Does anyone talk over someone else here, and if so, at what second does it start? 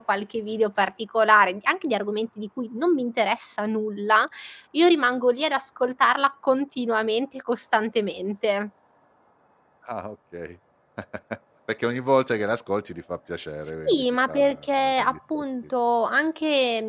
13.8 s

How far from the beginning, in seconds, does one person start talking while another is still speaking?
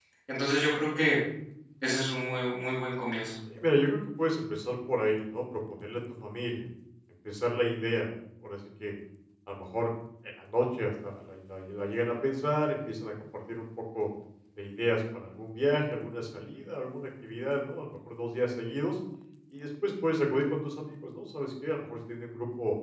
none

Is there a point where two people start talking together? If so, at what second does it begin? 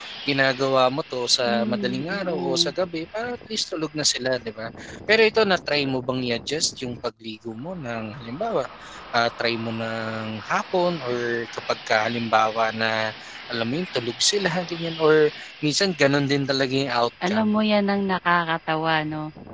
1.4 s

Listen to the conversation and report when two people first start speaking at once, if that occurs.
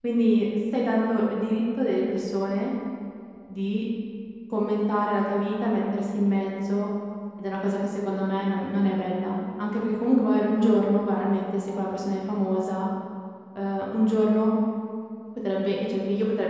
none

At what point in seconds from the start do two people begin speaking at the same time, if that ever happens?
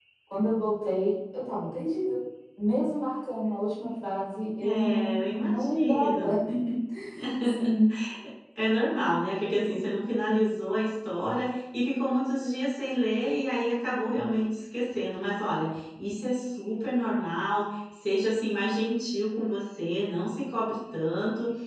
4.7 s

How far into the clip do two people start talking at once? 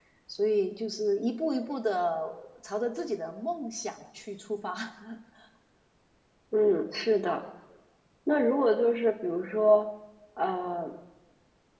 none

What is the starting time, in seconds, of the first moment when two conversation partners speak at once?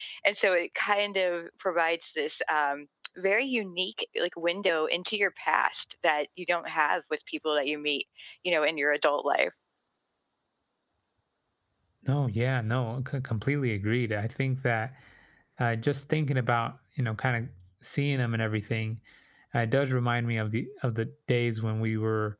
none

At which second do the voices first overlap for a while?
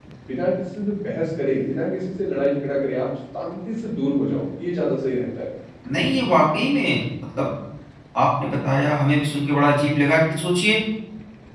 none

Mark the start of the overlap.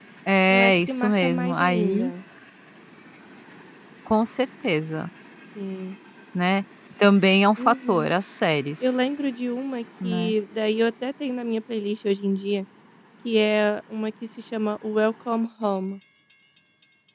0.5 s

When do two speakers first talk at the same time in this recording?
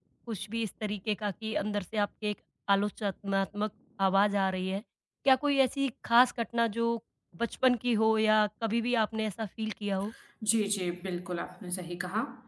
none

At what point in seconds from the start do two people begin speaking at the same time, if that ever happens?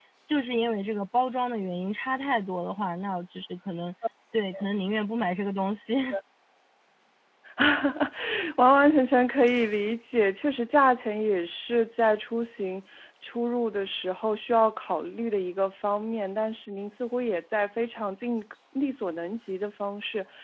none

